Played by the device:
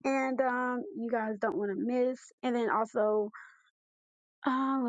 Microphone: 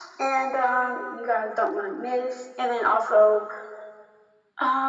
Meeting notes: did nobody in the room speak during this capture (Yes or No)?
Yes